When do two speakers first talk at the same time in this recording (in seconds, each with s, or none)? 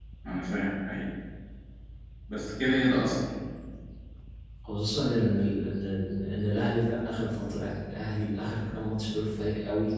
none